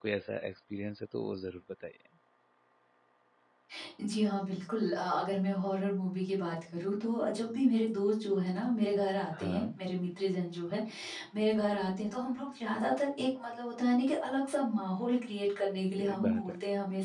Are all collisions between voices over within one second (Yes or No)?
Yes